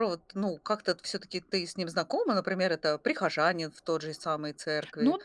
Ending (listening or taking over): taking over